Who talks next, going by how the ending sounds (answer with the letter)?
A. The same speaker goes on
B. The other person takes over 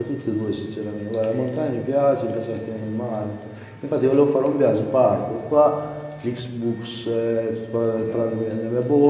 A